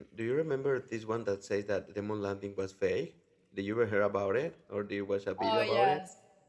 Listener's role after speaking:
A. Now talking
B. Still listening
A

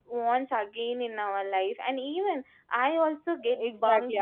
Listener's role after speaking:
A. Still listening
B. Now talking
B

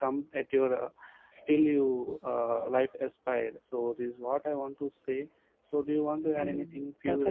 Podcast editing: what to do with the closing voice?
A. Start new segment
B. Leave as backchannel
A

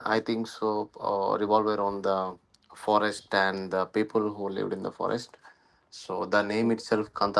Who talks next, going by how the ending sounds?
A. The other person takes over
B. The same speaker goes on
B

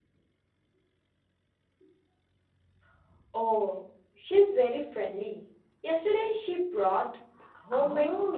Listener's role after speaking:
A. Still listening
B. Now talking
B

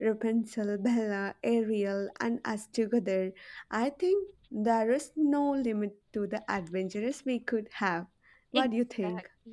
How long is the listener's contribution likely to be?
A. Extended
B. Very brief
A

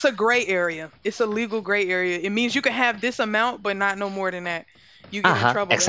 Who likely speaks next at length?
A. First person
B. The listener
B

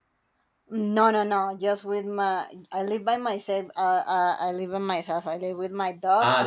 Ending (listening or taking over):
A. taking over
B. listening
A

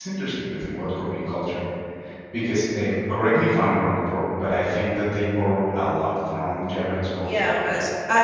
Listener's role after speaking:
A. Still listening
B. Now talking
B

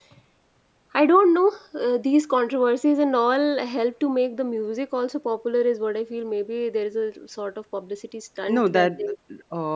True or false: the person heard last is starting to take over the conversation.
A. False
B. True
B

